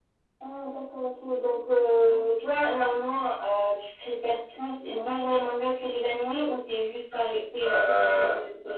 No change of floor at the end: No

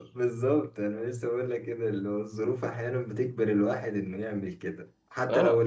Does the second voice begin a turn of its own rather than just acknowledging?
No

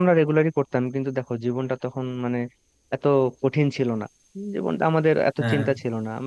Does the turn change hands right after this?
No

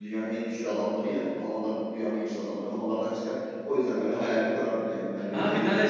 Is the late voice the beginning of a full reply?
Yes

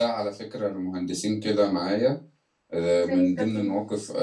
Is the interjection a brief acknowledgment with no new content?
Yes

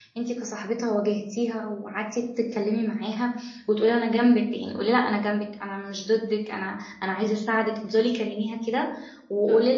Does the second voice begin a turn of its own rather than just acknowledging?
No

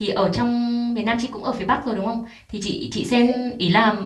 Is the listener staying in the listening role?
Yes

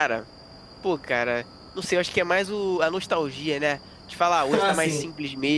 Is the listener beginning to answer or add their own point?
No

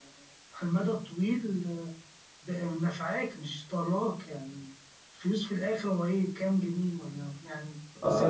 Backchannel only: No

